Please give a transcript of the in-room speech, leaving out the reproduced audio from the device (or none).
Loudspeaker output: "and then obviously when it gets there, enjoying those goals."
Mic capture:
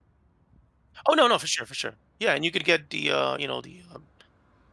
Oh, no, no, for sure, for sure. Yeah, and you could get the, uh, you know, the, um,